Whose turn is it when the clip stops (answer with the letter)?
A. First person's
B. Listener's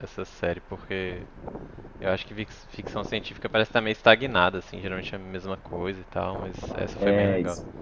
B